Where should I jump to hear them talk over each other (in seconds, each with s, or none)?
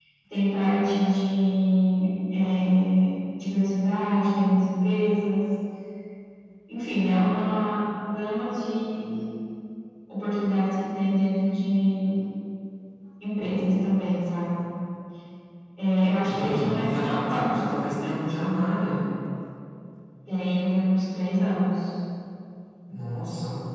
16.2 s